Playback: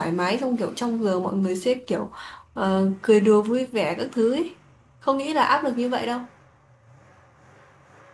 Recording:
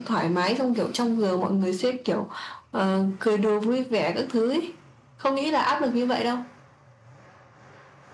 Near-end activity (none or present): none